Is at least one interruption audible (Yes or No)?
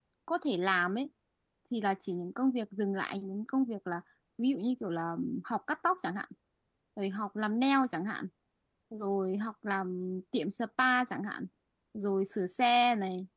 No